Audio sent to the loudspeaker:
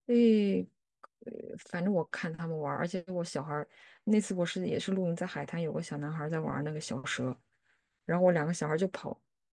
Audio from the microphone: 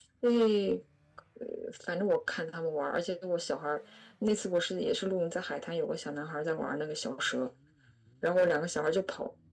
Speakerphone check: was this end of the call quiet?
Yes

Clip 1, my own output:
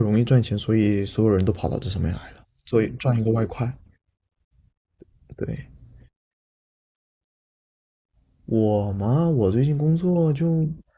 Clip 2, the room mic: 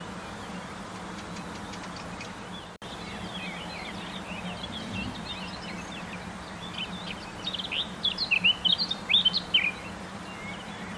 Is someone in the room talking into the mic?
No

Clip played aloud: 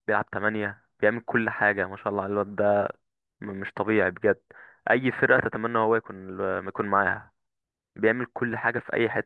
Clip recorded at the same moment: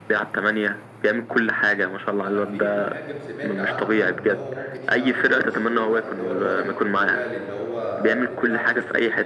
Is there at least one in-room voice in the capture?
Yes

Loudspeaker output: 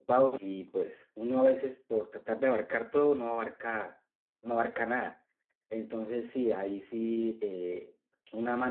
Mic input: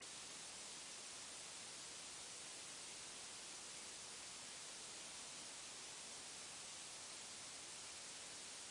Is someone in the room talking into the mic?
No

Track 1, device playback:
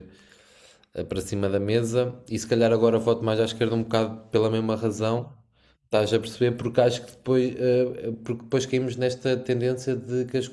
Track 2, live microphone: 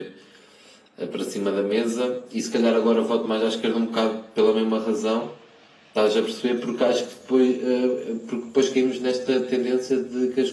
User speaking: No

